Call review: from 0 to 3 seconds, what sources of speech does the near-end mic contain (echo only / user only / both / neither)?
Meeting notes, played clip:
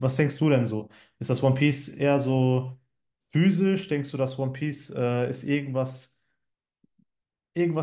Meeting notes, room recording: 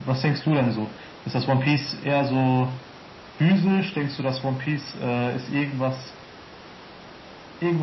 echo only